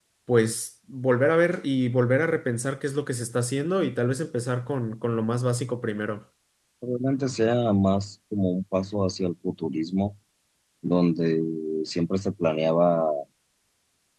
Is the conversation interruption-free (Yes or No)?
Yes